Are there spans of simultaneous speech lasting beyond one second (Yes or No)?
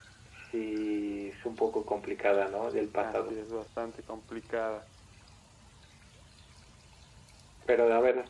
No